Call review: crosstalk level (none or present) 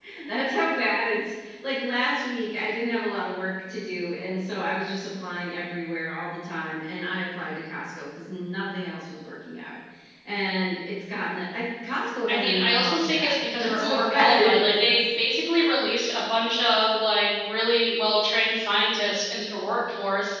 present